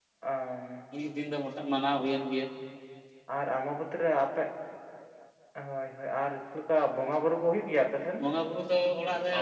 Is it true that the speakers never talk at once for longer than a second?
Yes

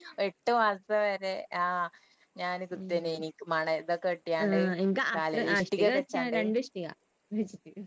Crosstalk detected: Yes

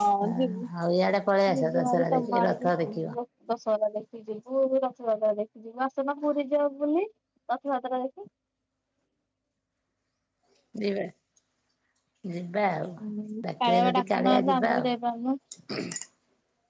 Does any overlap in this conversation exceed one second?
Yes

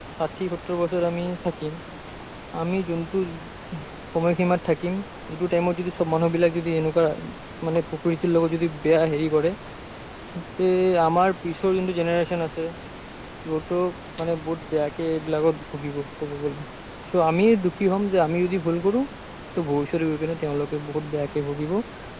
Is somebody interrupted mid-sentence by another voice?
No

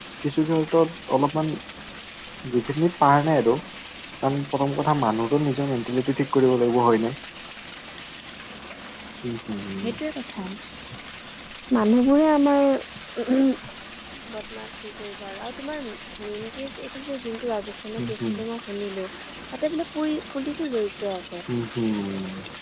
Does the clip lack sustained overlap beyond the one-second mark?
Yes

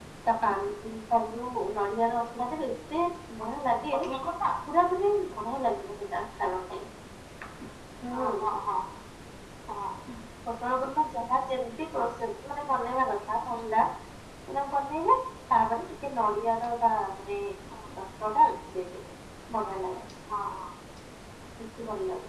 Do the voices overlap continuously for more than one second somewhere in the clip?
No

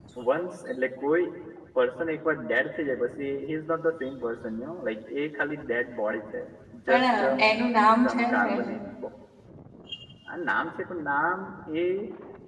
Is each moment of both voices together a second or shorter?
Yes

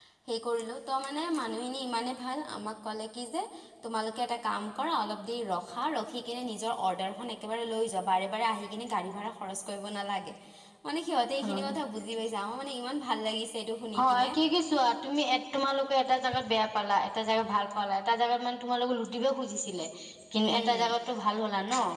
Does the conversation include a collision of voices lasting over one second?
No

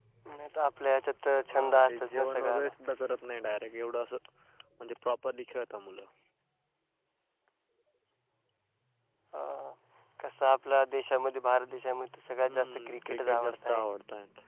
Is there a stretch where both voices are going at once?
Yes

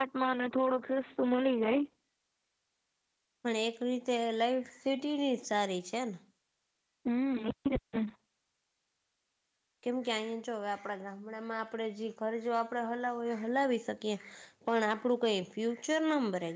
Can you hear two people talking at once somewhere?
No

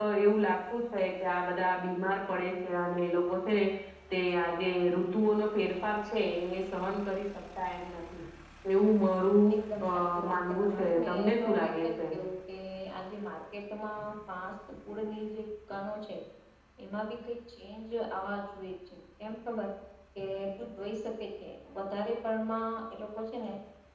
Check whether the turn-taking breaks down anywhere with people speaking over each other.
Yes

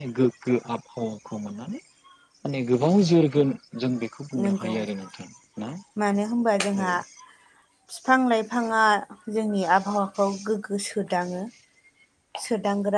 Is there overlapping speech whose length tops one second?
No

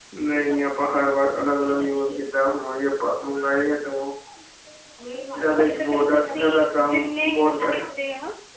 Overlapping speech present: Yes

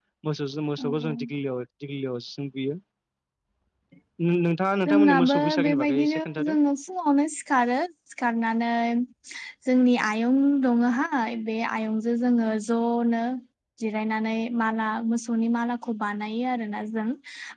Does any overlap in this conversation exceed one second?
Yes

